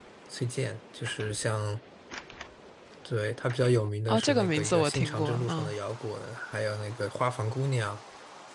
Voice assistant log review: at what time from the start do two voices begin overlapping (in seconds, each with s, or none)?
4.1 s